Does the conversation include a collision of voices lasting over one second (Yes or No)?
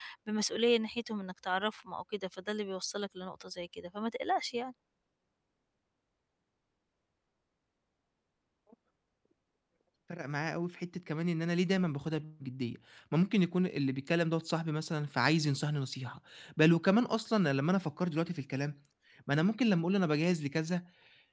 No